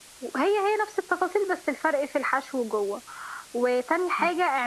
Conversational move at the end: listening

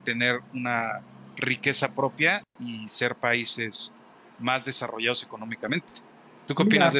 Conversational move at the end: taking over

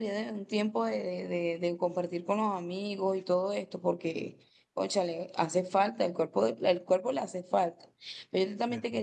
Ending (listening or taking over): listening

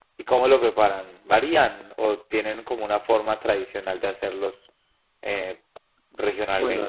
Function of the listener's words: taking over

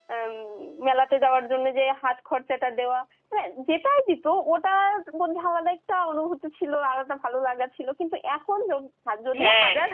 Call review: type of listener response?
taking over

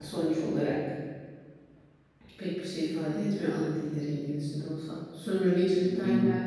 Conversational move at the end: listening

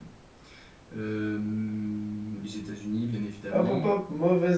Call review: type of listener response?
taking over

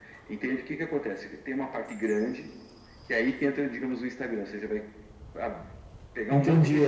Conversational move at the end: taking over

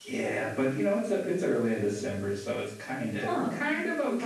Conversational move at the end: taking over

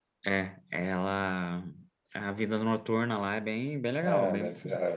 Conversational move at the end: taking over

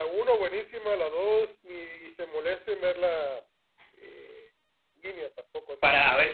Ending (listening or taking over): taking over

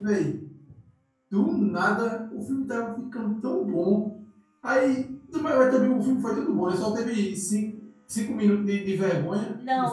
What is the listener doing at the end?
taking over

